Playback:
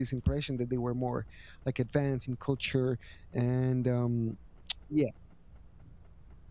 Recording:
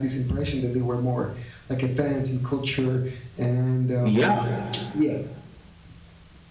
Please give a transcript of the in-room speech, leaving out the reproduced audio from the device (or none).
Yeah,